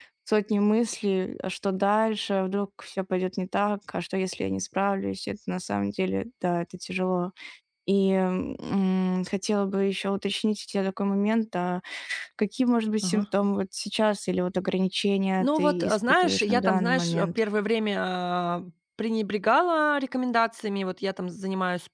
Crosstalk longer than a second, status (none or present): present